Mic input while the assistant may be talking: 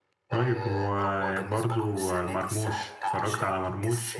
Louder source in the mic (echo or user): user